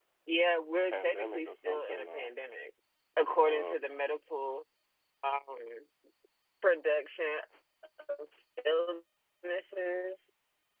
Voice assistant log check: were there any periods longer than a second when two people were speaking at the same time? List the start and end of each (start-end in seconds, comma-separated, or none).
0.9-2.3